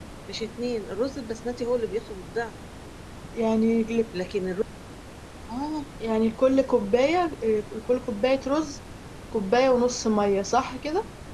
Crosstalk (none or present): none